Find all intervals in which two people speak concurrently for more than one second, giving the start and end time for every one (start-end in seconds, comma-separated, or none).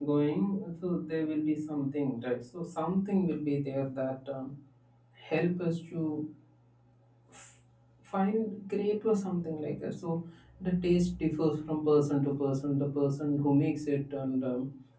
none